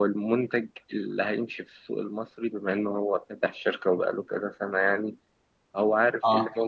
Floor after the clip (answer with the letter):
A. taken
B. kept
B